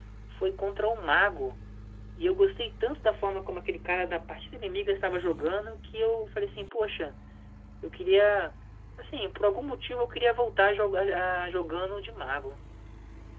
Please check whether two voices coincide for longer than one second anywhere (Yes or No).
No